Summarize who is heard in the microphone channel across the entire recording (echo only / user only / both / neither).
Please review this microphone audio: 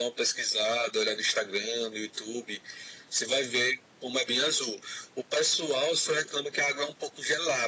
echo only